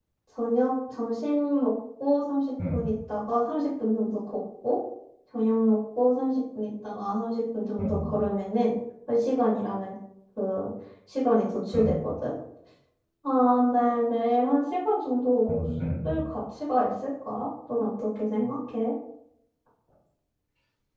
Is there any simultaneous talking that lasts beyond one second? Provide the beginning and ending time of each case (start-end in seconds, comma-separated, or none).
none